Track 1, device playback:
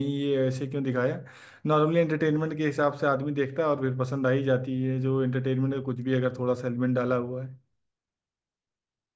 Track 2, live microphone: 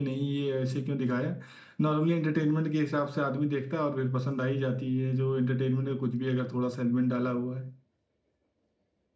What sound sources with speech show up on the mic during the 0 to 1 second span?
echo only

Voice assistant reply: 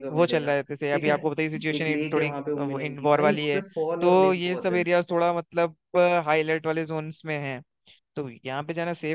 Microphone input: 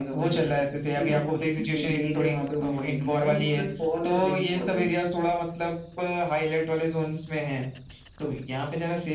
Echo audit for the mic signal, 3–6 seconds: echo only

